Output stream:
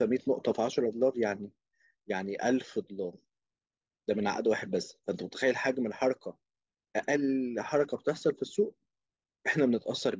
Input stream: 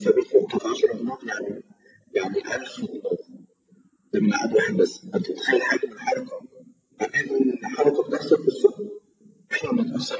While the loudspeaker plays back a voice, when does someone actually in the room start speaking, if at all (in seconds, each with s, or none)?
none